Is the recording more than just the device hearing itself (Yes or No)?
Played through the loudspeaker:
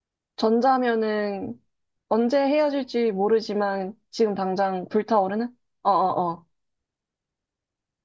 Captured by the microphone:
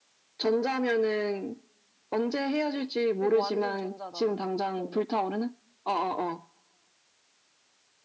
Yes